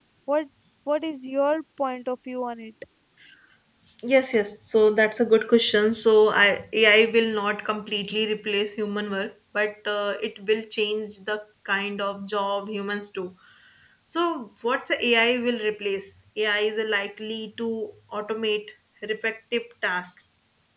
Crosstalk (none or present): none